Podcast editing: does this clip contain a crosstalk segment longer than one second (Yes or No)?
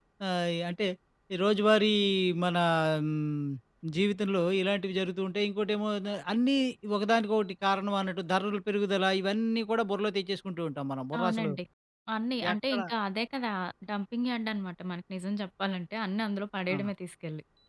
No